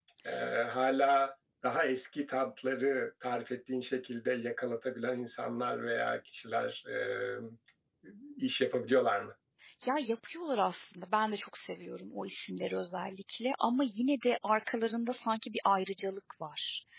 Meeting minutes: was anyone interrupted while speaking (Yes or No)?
No